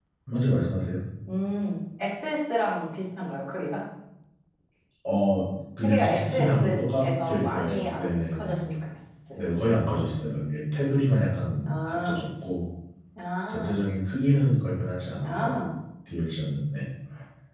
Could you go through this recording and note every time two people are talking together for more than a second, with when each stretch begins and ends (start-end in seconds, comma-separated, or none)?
5.8-8.5